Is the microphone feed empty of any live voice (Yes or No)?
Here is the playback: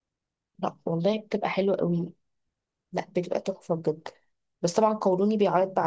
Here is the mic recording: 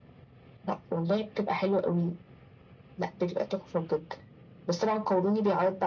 Yes